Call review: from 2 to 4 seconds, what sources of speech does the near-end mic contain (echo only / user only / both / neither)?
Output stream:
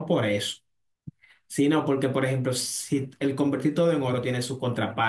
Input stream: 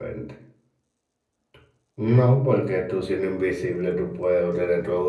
user only